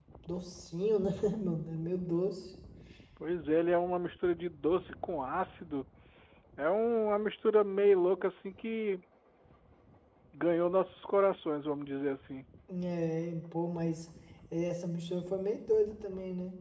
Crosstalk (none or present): none